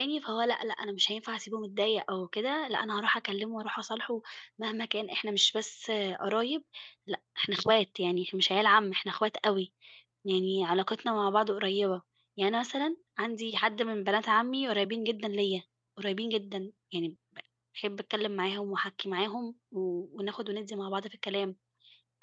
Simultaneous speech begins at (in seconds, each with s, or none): none